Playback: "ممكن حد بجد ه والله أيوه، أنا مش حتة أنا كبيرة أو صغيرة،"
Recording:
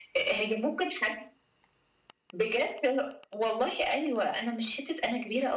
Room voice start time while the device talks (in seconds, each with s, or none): none